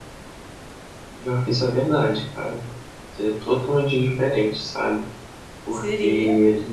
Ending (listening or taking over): listening